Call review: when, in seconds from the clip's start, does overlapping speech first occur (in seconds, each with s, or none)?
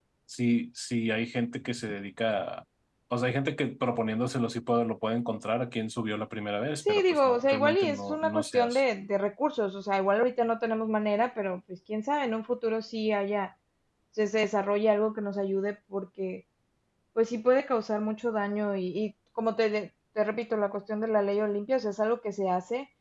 6.9 s